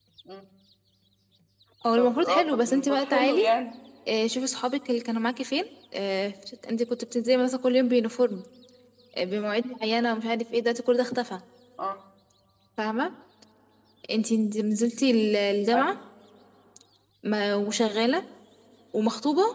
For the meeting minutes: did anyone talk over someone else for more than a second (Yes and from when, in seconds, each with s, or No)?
Yes, from 2.0 s